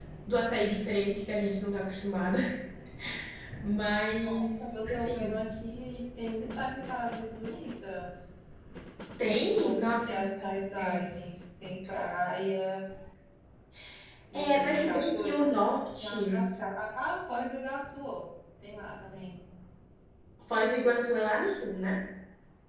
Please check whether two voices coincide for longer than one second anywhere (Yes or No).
Yes